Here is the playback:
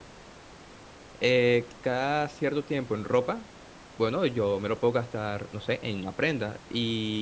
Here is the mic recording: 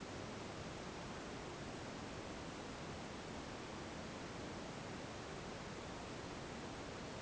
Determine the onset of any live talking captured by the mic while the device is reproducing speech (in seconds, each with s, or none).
none